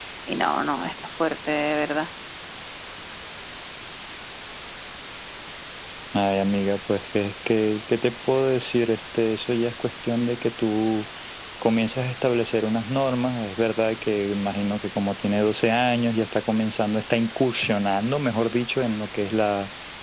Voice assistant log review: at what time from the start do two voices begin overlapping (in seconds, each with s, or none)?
none